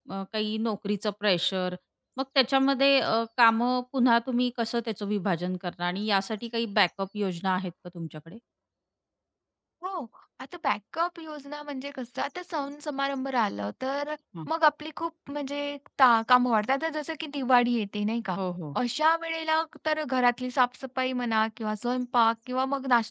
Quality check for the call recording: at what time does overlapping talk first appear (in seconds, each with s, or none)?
none